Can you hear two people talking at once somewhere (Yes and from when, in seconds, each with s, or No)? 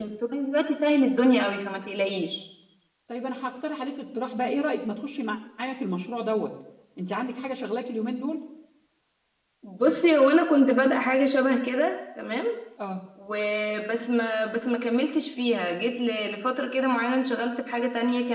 No